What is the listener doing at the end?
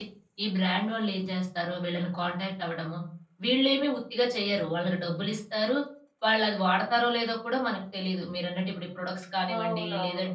listening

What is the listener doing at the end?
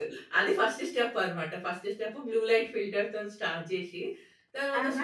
listening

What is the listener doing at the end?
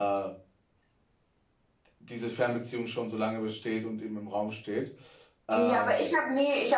taking over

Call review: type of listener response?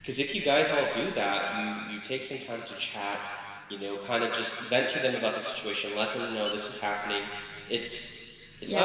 taking over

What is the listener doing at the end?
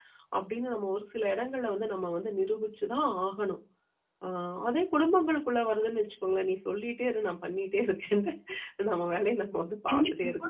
taking over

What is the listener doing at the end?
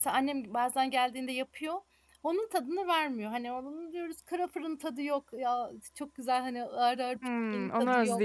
taking over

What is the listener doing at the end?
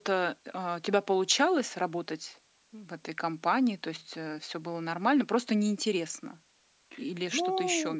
taking over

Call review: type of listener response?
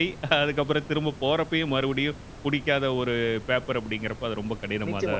taking over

